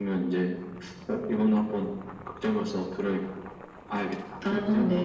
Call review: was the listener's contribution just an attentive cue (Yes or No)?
No